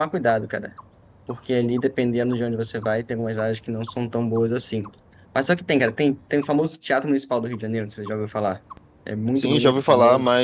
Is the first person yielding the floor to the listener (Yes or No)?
Yes